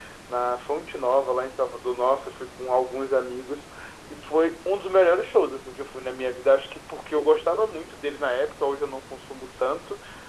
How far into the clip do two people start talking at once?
none

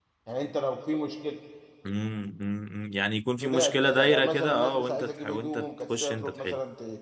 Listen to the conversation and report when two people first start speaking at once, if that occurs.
3.4 s

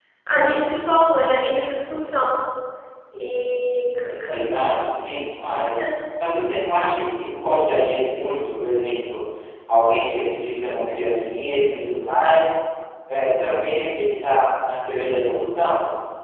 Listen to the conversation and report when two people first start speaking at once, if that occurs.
none

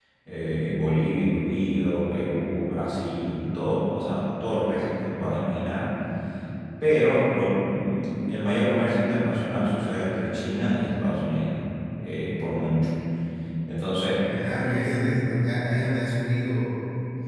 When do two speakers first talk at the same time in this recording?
none

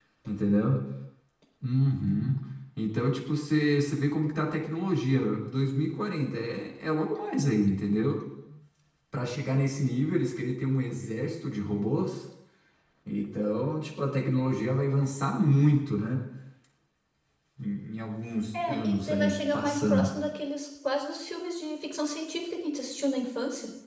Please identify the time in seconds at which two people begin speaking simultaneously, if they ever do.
18.5 s

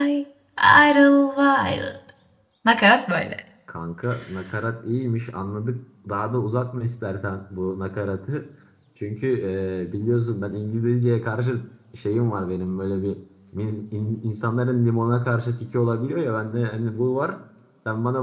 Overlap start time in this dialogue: none

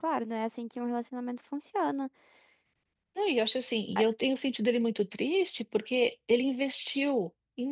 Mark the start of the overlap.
none

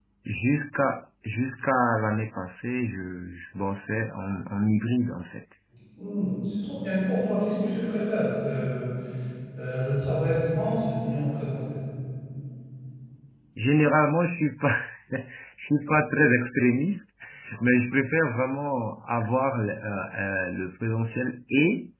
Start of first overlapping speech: none

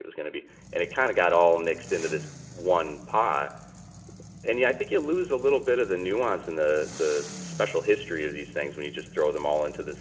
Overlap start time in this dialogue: none

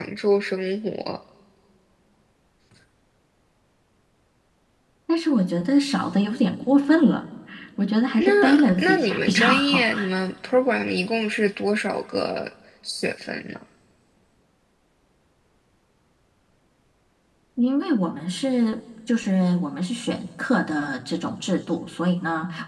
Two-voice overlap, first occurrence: 8.2 s

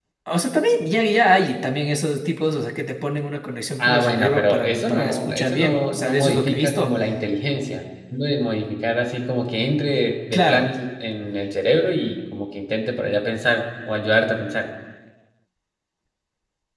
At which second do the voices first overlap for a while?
3.8 s

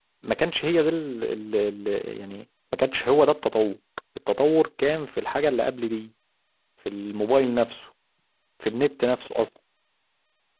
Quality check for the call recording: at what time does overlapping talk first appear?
none

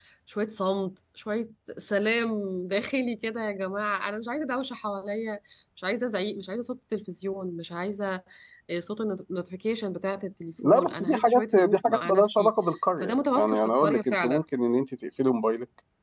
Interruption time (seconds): 10.6 s

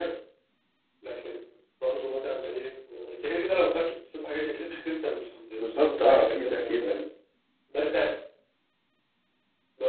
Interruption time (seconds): 5.6 s

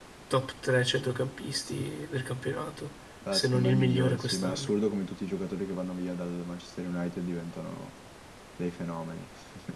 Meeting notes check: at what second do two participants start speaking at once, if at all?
3.2 s

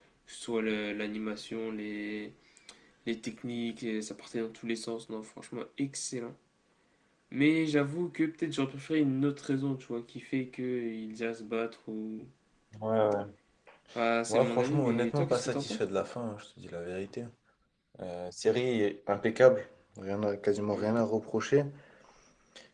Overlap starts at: 14.3 s

